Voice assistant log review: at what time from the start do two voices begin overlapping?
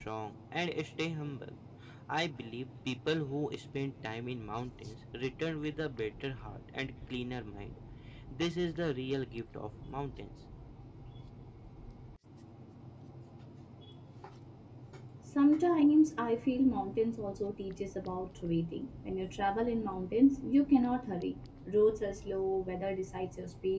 none

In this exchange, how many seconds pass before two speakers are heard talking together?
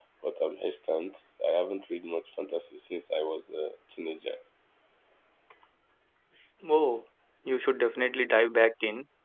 none

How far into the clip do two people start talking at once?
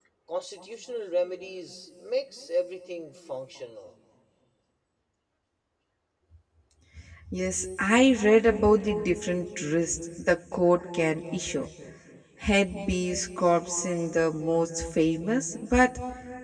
none

